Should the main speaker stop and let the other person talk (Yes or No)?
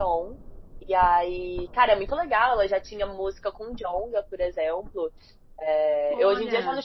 No